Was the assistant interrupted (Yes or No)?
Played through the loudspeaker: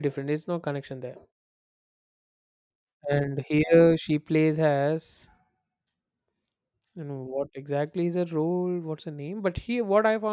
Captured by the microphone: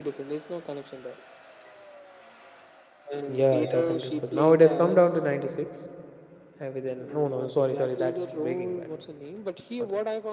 Yes